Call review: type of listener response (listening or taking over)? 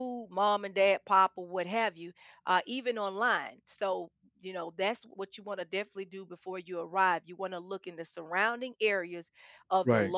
listening